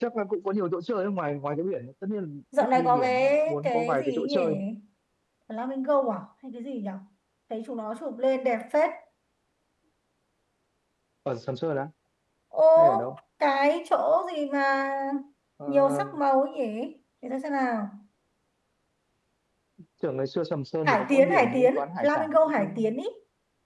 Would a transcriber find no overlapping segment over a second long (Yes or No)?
No